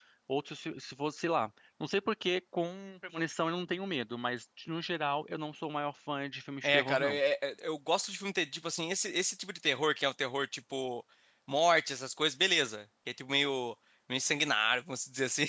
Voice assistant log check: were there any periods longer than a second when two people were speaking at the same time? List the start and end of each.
none

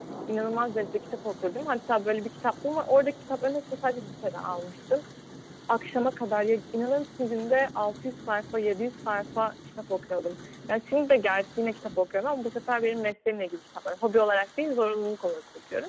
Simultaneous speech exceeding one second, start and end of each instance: none

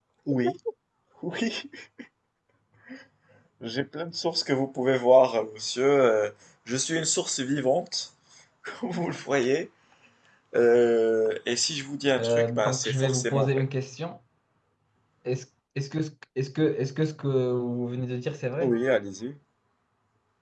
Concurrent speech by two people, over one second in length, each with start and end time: 12.2-13.6

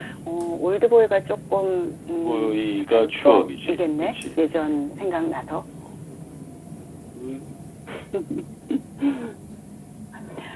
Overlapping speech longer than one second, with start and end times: 2.2-4.1

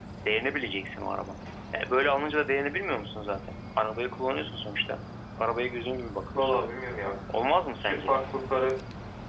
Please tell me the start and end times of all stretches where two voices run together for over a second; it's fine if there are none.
none

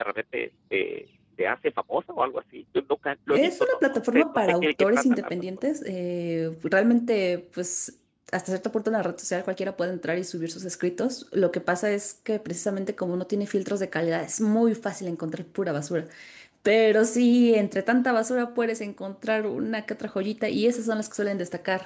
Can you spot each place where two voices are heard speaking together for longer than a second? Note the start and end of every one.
3.3-5.5

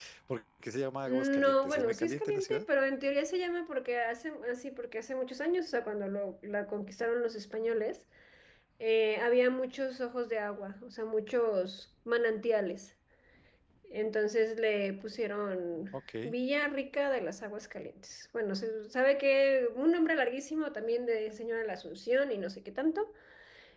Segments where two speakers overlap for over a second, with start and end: 1.1-2.6

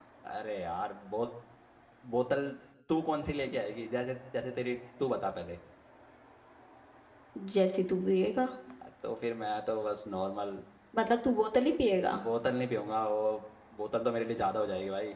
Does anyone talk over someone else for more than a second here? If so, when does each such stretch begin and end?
none

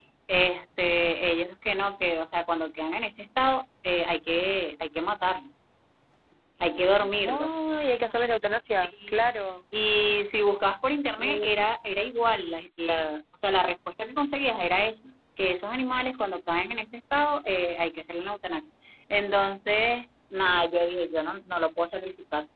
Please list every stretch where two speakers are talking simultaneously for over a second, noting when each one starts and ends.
none

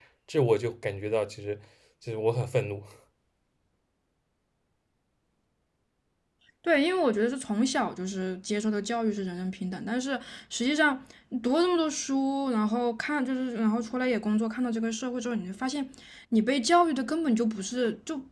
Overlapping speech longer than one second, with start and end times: none

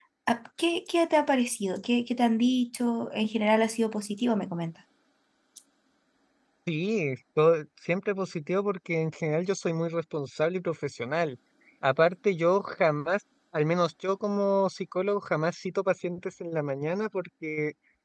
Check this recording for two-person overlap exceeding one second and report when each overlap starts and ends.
none

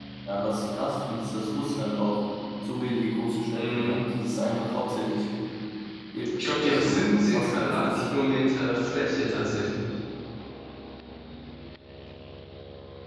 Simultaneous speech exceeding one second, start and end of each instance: 6.5-8.0

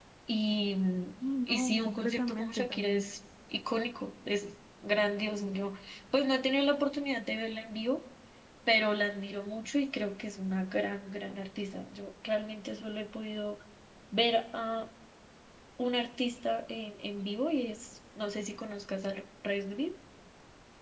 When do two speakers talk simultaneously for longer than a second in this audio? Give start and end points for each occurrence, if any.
1.5-3.1

